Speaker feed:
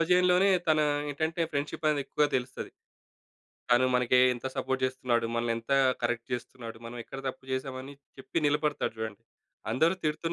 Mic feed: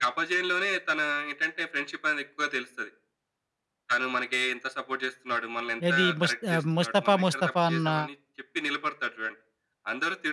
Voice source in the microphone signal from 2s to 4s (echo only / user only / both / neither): echo only